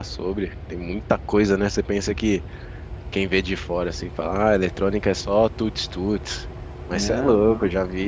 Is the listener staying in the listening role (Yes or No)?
Yes